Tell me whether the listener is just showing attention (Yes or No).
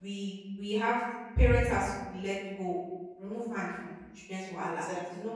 Yes